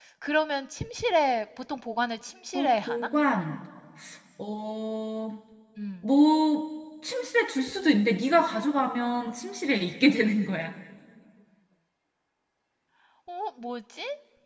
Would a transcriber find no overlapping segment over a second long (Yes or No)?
Yes